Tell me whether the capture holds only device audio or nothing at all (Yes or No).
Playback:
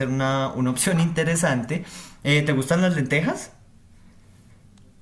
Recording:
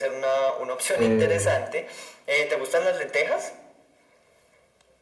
No